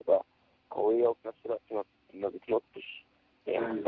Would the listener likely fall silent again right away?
Yes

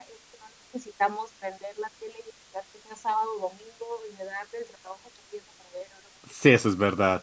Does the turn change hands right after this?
Yes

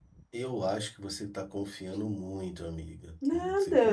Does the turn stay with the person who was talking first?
No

